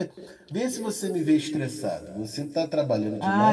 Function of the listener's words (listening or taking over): taking over